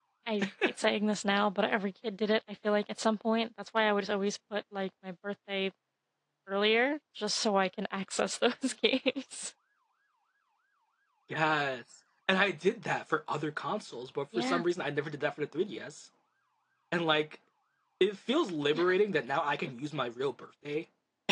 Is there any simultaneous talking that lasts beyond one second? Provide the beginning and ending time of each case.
none

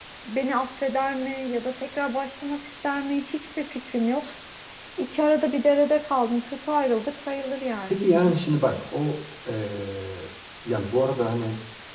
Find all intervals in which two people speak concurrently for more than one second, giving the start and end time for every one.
none

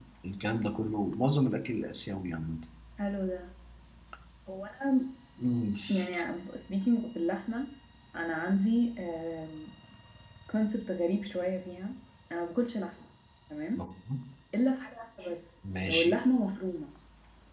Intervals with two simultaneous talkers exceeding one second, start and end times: none

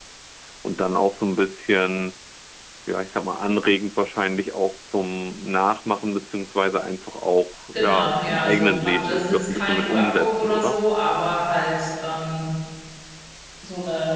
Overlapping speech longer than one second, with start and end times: 7.7-10.8

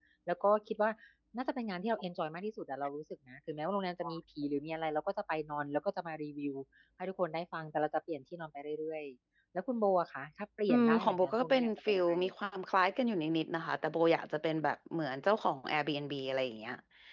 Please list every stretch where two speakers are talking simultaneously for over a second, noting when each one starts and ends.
10.7-12.3

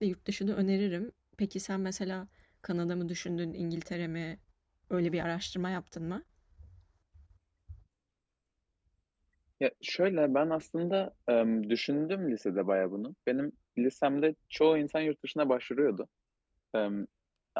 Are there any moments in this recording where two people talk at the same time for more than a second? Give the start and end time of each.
none

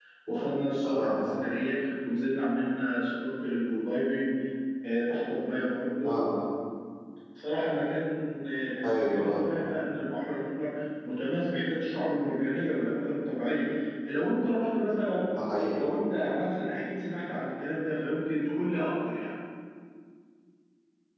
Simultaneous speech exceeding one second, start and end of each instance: none

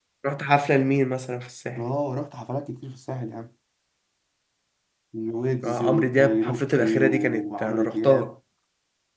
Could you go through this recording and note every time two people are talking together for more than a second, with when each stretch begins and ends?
5.6-8.3

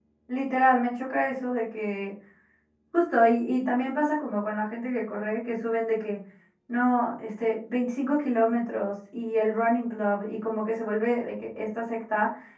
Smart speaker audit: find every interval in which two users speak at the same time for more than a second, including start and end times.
none

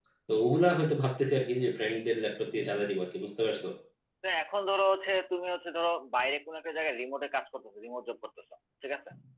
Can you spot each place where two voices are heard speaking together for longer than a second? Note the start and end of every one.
none

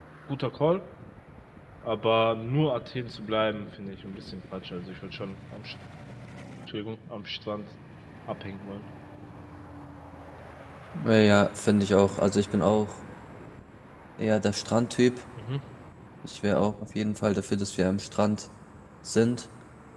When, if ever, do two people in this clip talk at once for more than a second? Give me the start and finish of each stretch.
none

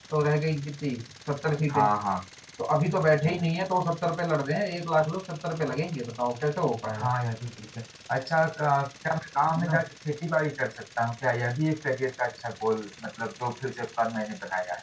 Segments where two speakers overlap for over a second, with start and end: none

